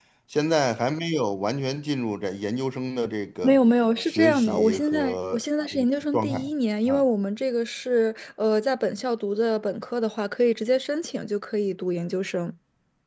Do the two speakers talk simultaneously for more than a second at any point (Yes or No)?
Yes